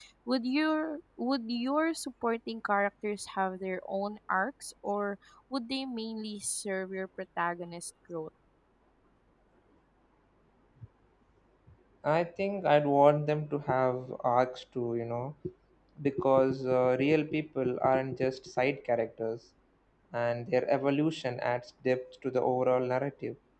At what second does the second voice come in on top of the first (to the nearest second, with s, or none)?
none